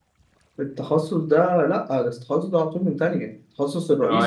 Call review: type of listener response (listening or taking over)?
taking over